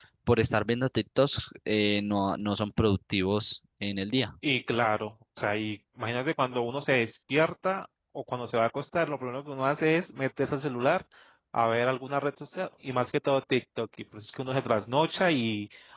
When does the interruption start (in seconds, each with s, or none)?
none